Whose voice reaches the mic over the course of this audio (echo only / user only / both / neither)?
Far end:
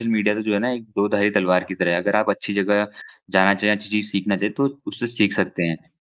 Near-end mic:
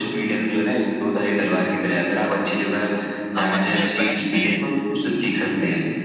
both